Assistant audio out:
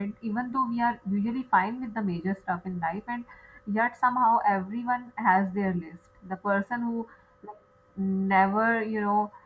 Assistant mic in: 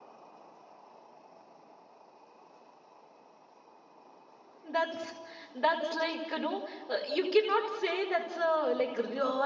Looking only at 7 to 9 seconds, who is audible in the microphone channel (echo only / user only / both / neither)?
user only